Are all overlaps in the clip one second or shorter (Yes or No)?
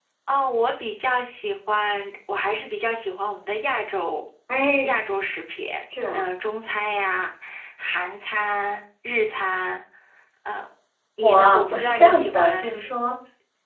No